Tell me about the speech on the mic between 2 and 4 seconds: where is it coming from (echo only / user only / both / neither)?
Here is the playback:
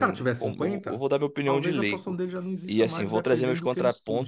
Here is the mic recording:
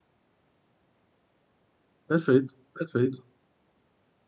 user only